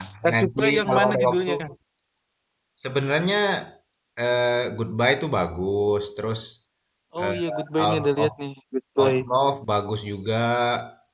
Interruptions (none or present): present